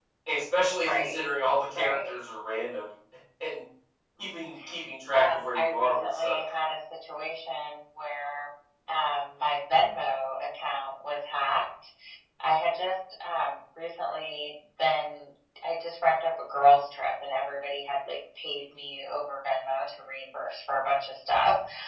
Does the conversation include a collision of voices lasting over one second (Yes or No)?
Yes